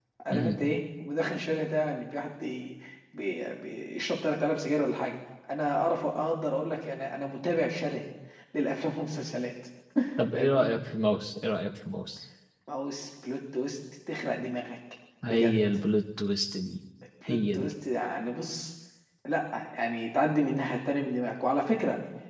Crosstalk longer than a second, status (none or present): none